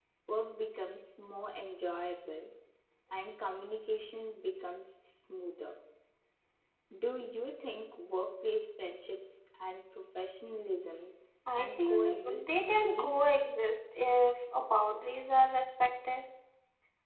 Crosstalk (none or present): present